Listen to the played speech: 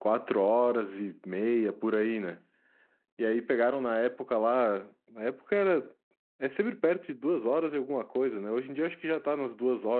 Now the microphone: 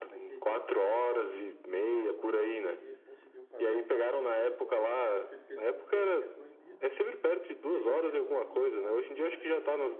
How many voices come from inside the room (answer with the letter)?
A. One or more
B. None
A